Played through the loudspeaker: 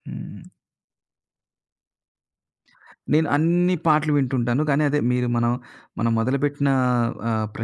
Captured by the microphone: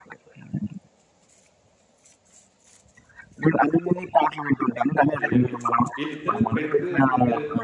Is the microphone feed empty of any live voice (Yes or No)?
No